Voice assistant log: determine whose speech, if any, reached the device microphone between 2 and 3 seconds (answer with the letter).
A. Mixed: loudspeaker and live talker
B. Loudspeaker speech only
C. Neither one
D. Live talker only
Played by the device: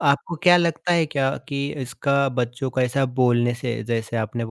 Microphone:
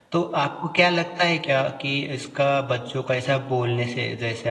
B